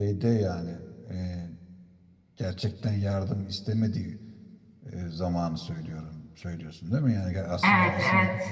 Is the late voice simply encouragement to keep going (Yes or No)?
No